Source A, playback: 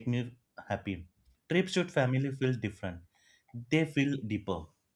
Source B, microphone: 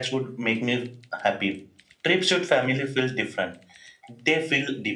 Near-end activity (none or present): none